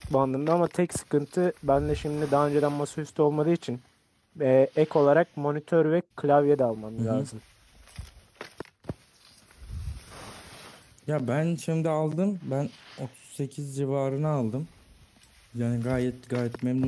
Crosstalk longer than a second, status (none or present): none